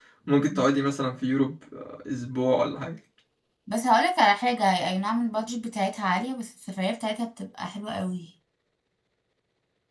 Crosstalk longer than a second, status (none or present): none